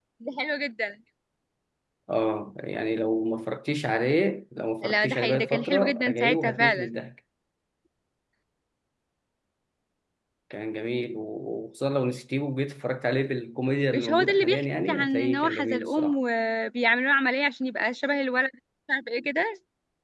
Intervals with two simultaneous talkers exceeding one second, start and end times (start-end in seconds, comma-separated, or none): 4.8-6.9, 13.9-16.2